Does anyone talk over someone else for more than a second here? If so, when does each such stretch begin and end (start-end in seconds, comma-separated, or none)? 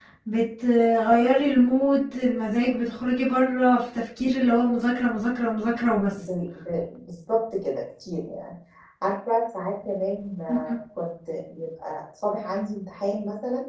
none